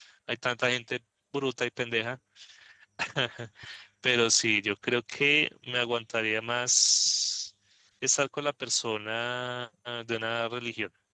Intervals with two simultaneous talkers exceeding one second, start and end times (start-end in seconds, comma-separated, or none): none